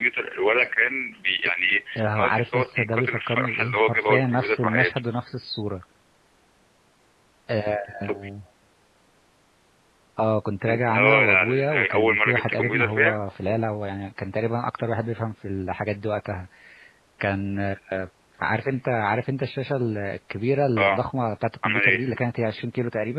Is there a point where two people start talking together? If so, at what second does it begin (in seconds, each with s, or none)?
2.0 s